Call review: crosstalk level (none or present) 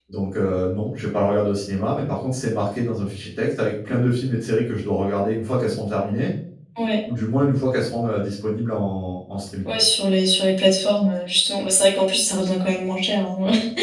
none